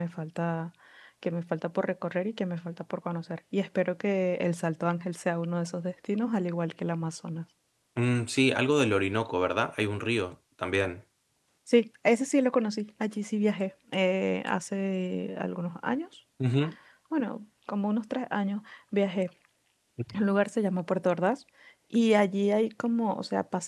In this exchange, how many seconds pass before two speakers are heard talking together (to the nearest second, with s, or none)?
none